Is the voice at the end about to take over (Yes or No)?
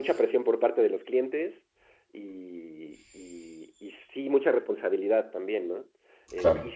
No